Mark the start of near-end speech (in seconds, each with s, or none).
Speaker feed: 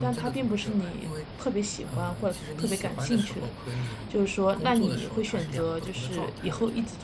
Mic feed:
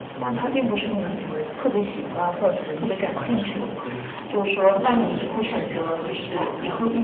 none